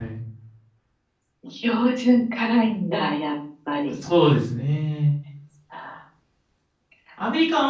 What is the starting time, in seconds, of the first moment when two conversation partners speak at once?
none

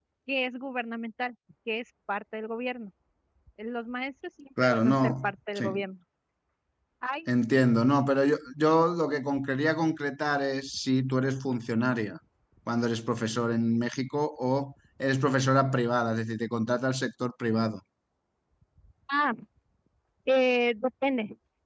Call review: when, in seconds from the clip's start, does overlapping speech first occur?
4.6 s

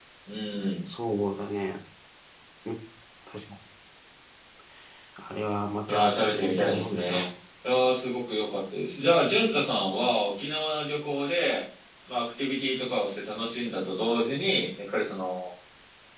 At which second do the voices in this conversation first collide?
5.9 s

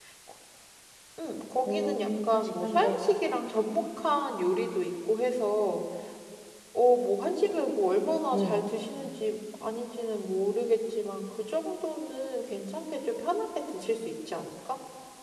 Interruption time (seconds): 1.7 s

